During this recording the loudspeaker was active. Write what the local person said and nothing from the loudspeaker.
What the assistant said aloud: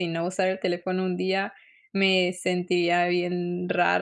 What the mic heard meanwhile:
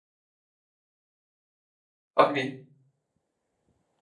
Okey.

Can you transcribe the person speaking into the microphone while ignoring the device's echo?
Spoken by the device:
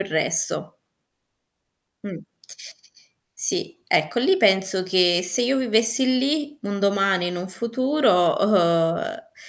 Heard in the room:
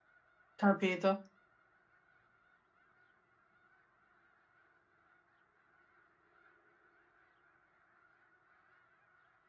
Capito.

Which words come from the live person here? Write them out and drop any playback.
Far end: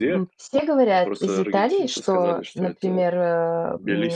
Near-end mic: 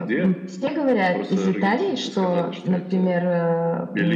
none

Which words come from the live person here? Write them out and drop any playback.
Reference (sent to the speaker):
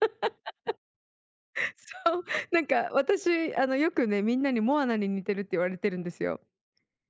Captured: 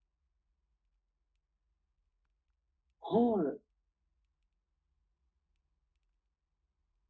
はい。

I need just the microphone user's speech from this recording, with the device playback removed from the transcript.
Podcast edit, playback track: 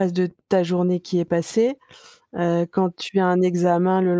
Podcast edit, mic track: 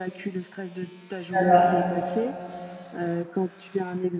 Ça va.

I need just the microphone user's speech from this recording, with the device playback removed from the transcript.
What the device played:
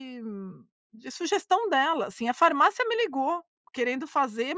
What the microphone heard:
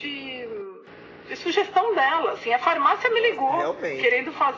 Nossa, realmente,

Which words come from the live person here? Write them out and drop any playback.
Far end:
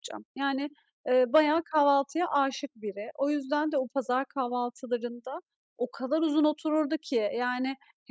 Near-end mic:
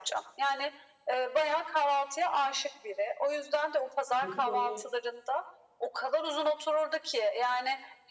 peki, böyle,

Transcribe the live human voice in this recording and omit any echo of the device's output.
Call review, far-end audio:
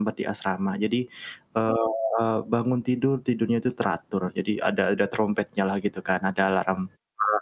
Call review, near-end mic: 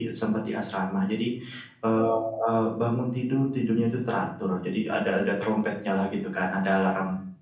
none

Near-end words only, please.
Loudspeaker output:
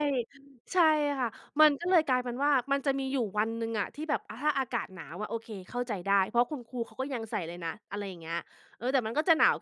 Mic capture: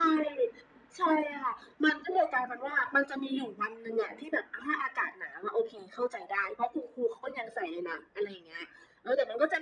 none

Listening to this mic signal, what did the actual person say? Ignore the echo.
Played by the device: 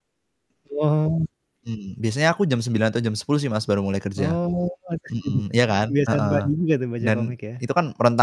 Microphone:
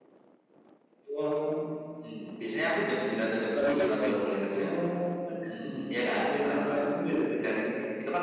abis olahraga ngapain biasanya?

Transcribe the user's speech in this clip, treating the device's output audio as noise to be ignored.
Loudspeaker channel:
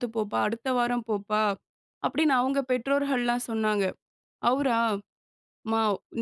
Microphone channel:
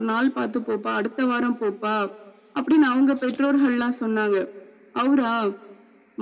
none

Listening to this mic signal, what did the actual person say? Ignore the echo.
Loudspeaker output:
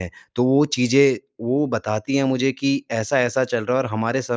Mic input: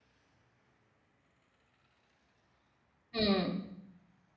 हुँ।

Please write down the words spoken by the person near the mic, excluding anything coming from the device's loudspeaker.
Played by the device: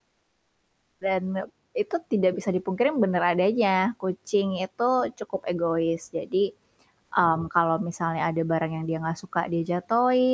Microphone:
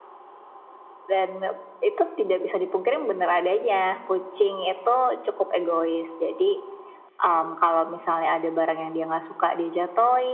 none

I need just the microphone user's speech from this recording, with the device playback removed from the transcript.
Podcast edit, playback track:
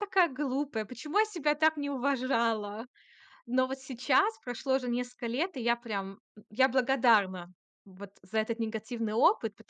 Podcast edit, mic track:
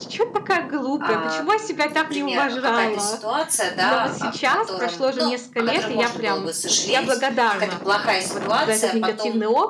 ам, например, э, какая-то ситуация да, о котором ну о которой можно было бы сожалеть. Какая-то плохая ситуация потом

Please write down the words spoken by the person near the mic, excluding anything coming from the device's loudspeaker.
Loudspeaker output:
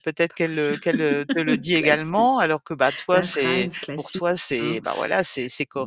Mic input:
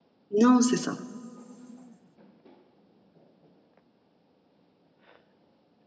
Non, c'est ça.

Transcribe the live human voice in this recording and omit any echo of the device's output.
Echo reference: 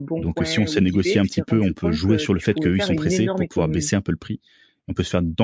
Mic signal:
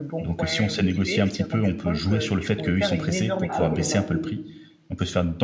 Ah oui, là tu as fait

